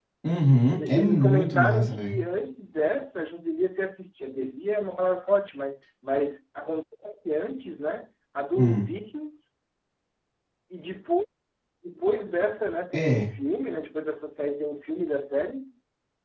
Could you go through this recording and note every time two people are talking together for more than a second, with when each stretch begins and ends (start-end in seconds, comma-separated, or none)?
0.8-2.2